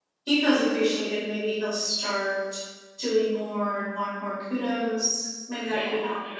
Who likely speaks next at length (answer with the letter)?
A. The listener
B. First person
A